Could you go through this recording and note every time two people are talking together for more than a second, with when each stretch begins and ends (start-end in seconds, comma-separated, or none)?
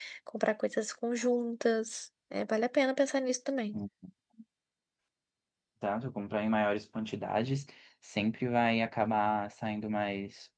none